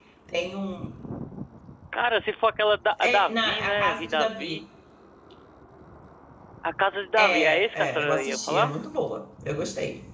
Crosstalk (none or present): present